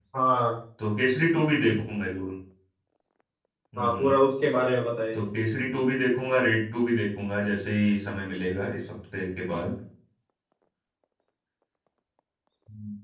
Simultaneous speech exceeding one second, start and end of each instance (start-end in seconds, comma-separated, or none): none